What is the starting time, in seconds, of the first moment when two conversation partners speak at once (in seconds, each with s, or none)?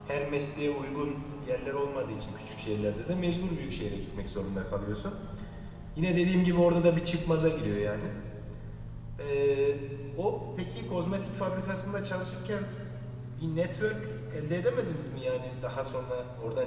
none